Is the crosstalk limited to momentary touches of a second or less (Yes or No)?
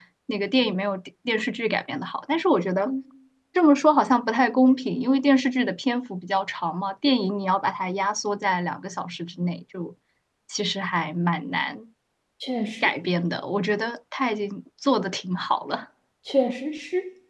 Yes